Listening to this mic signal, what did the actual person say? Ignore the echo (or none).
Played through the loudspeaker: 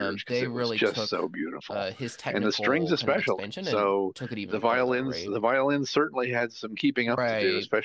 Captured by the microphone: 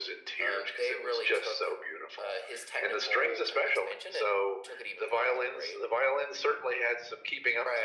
none